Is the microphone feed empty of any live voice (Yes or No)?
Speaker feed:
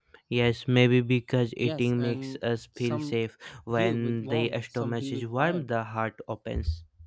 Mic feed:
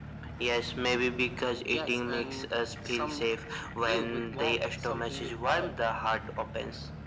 Yes